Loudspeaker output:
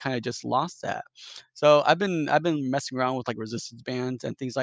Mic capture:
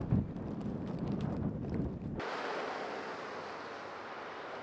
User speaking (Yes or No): No